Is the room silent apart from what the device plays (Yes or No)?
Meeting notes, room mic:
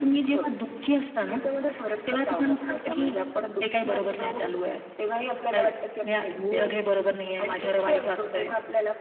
No